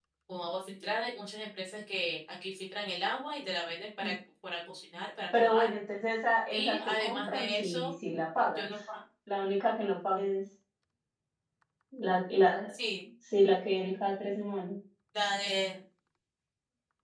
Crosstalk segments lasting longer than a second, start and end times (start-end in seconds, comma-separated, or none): 6.5-7.9